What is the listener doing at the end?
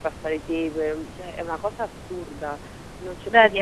taking over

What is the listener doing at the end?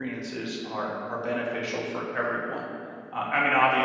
listening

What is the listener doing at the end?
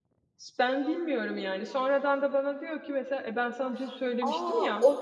taking over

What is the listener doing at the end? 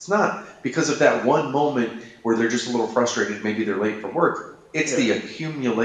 listening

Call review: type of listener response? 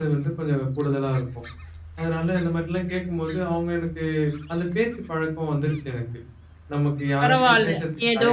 taking over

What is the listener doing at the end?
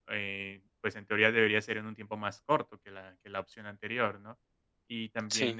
listening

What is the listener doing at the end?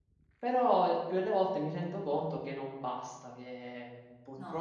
listening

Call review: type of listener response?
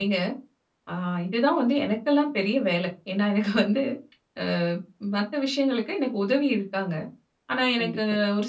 listening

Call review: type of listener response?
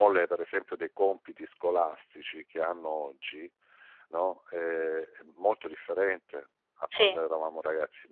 listening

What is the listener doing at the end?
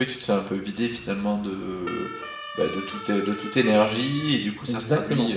listening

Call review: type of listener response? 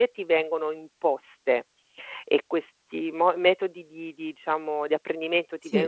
listening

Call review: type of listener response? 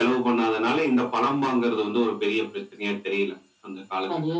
taking over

